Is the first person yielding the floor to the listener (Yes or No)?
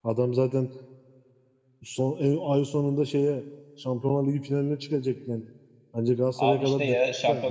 Yes